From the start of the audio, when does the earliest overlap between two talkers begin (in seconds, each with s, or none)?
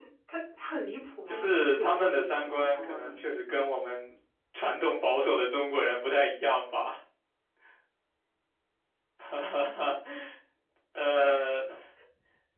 1.3 s